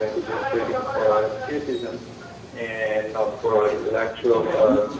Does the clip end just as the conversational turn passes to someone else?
Yes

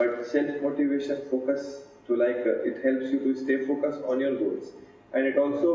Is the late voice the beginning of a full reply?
No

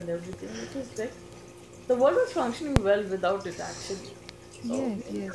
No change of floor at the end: No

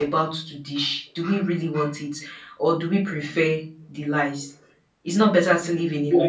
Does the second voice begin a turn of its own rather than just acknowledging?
Yes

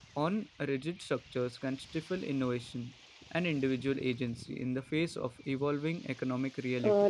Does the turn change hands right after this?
Yes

